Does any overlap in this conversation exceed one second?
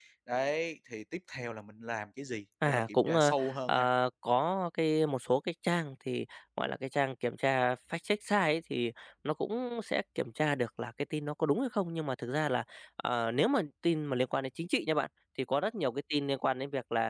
Yes, from 2.6 s

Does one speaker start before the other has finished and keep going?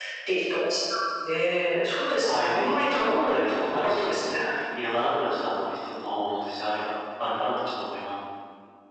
Yes, from 2.2 s

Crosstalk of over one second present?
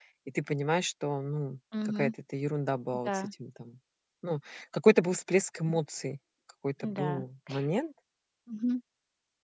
No

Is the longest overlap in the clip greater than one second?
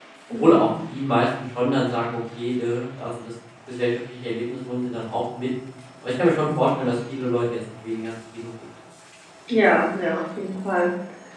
No

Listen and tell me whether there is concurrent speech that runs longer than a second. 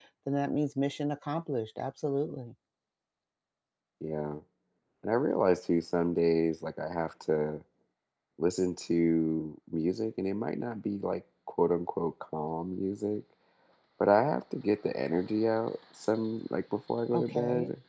No

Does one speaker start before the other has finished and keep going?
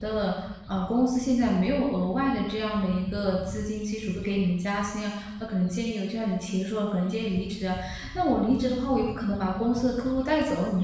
No

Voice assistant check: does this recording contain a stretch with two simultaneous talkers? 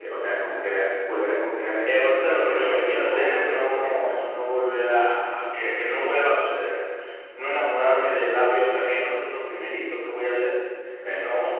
Yes, from 1.9 s

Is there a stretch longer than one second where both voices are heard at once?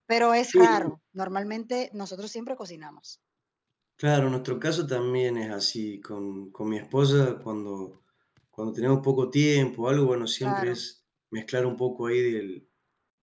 No

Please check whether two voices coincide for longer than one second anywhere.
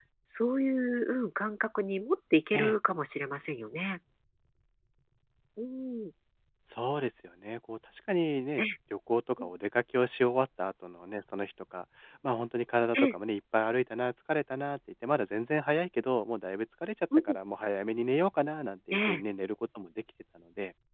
No

